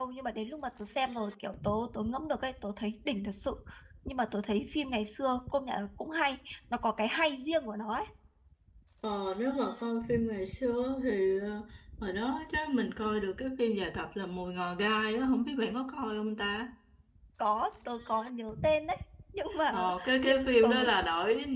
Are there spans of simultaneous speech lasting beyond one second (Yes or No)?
Yes